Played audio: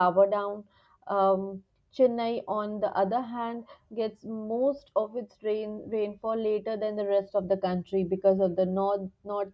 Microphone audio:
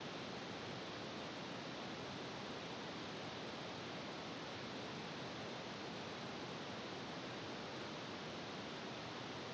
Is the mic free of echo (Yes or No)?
Yes